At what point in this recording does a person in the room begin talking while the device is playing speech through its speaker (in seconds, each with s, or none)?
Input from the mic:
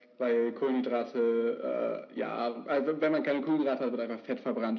none